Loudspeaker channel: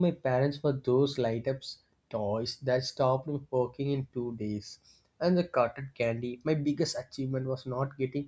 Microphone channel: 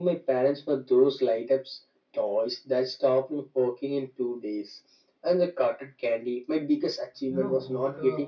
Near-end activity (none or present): present